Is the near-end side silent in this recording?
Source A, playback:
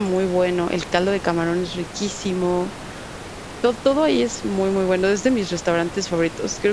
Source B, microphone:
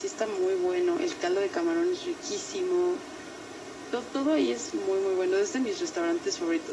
Yes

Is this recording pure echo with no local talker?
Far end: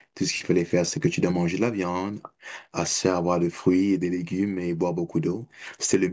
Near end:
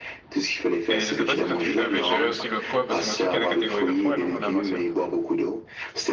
No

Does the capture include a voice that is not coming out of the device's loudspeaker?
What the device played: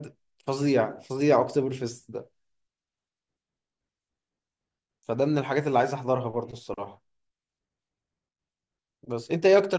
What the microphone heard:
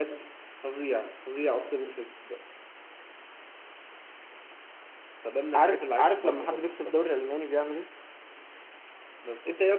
Yes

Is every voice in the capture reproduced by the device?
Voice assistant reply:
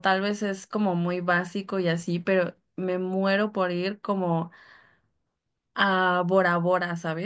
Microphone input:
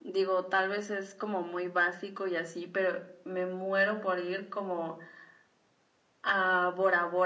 Yes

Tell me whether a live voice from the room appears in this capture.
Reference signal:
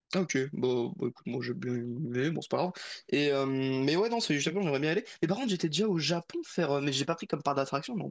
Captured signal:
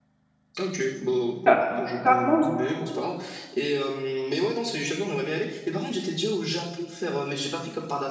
Yes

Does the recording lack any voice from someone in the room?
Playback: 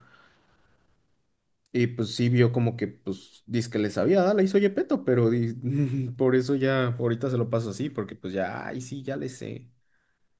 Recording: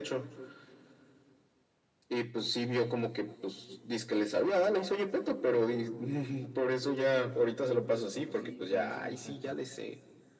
No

